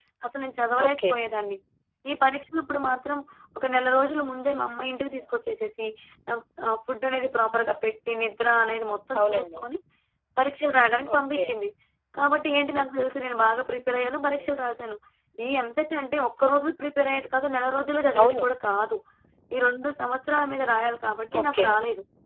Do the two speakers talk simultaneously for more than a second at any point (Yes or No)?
No